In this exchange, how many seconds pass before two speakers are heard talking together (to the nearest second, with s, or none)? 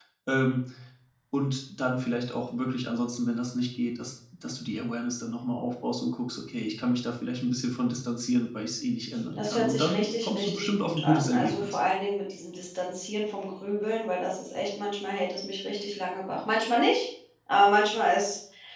9 s